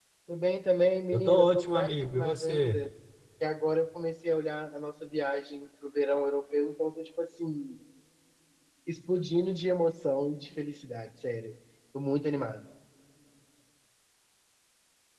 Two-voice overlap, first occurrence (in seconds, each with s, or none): 1.1 s